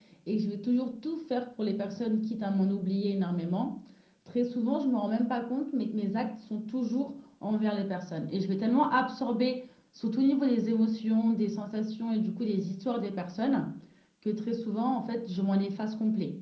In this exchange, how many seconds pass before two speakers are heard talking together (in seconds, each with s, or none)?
none